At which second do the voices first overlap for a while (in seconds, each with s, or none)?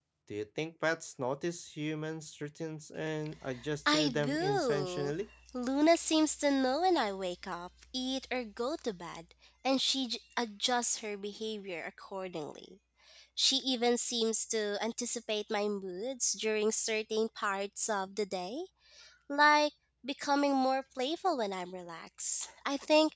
3.9 s